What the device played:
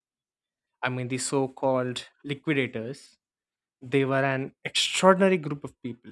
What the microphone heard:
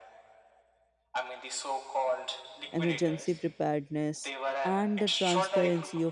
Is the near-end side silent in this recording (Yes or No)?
No